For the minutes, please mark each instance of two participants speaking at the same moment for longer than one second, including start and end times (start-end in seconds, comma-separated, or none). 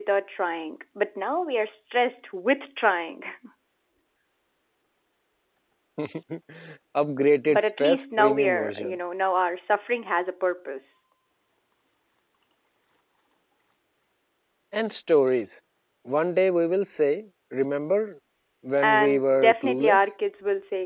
7.5-9.0, 18.8-20.1